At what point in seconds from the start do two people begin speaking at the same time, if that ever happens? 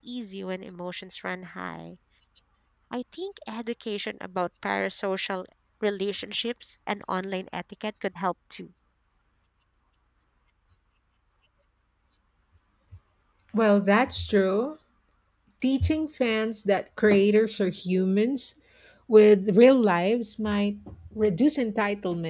none

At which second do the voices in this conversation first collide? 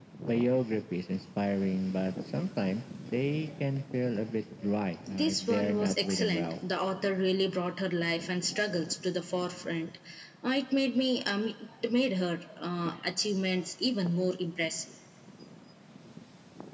5.1 s

